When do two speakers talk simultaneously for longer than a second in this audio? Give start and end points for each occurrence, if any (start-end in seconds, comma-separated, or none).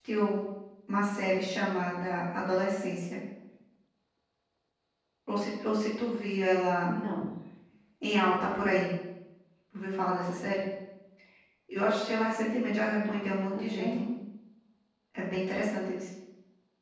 12.4-14.1